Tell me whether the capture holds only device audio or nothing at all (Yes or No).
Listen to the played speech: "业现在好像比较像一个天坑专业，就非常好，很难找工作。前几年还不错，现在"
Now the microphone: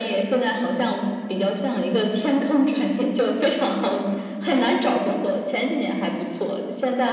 Yes